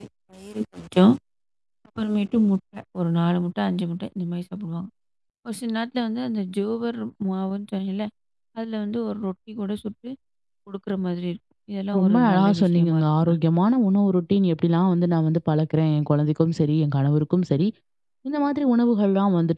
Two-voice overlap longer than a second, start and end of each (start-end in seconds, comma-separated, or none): 12.0-13.3